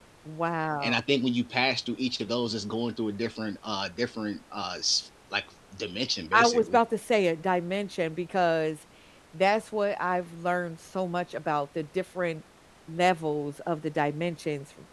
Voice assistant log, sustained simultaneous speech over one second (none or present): none